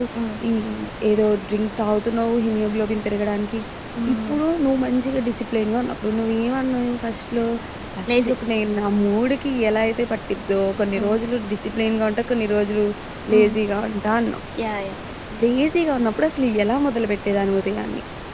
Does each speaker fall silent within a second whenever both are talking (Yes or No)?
Yes